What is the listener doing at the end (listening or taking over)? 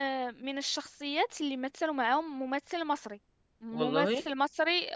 listening